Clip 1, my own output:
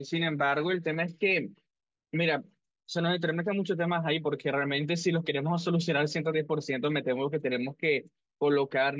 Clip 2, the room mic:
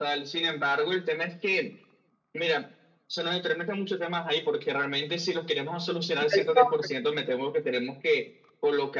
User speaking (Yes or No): Yes